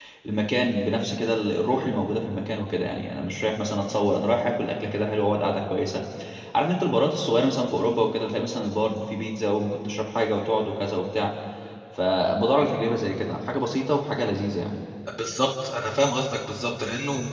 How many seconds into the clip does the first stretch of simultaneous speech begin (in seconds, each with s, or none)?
none